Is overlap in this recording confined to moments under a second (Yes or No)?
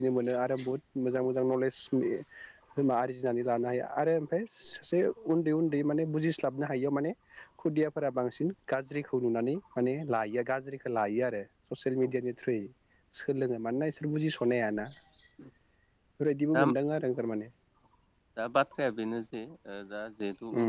Yes